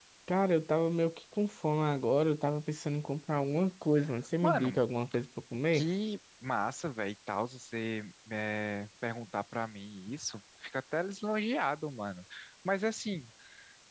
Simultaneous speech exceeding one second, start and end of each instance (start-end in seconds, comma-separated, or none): none